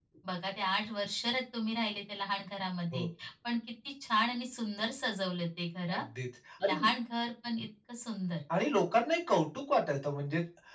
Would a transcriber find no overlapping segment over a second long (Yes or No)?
Yes